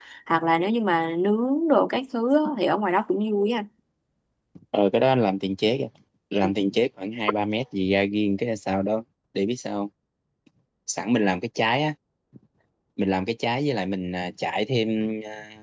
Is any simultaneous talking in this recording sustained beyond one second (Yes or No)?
No